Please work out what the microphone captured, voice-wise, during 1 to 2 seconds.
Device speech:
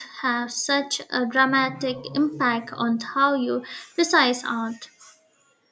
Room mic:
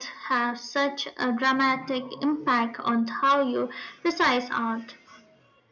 echo only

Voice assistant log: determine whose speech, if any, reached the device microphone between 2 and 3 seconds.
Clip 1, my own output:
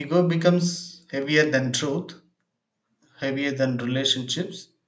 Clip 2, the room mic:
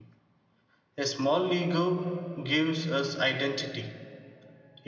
user only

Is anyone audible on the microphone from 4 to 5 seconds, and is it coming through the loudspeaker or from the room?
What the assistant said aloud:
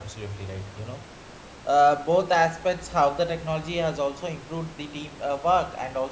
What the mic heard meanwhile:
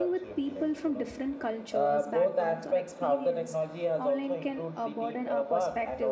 both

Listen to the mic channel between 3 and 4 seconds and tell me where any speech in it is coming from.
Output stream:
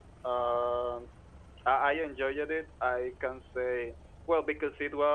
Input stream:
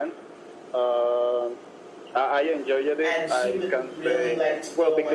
both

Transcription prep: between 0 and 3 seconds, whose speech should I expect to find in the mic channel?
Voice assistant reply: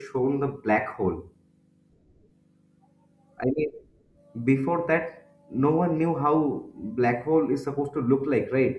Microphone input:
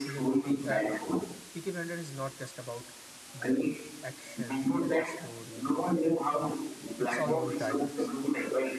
both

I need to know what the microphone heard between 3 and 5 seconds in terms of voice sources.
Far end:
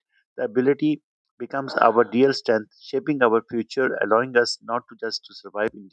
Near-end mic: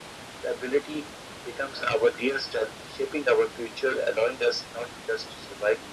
echo only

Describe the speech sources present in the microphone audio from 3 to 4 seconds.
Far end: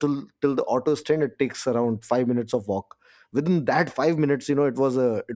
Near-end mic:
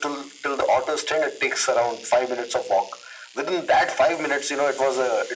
echo only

